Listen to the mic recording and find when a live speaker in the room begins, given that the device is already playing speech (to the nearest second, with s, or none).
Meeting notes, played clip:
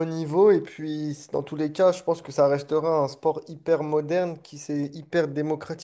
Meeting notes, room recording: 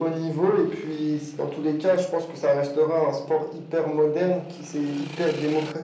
none